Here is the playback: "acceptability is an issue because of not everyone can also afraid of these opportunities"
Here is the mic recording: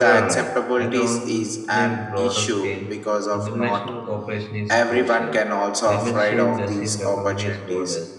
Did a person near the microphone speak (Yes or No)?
Yes